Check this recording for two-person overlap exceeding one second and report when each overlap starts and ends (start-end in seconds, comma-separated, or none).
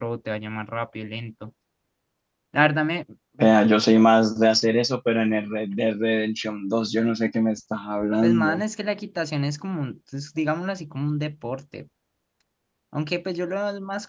none